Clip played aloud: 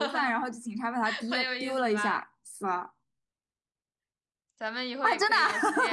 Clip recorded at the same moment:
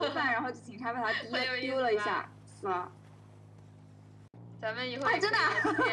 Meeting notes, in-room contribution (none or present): none